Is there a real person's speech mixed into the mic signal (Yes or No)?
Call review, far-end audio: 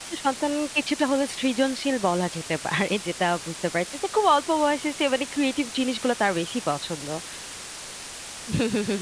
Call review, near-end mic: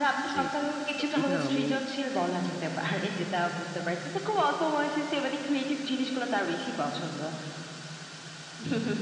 Yes